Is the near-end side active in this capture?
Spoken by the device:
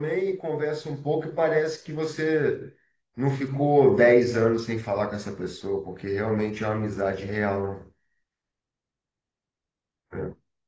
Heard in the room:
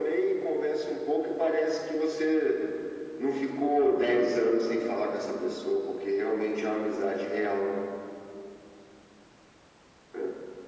No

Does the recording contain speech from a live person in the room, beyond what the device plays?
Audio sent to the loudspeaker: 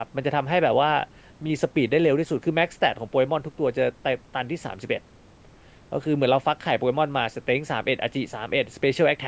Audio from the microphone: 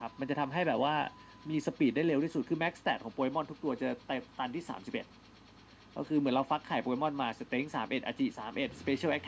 No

